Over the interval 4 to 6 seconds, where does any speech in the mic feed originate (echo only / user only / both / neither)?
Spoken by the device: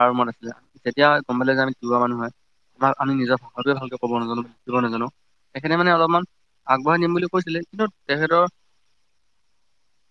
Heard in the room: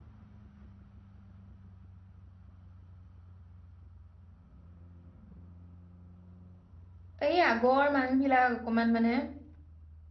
neither